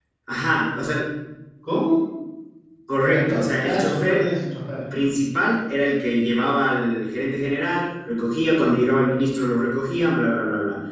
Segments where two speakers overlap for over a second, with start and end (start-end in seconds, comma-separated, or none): 3.0-4.3